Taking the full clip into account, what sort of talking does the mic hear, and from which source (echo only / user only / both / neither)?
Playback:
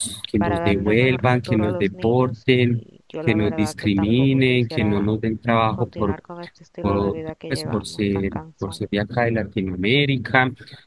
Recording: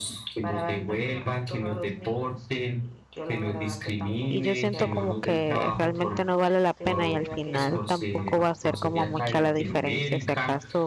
both